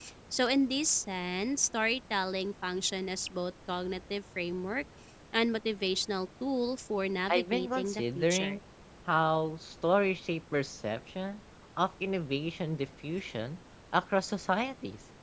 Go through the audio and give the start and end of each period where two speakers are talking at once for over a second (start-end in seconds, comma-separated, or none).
7.3-8.6